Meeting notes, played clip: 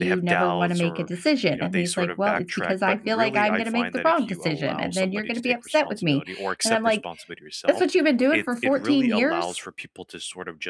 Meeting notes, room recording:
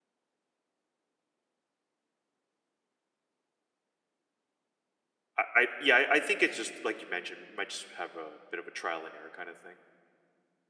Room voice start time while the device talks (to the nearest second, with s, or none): 5 s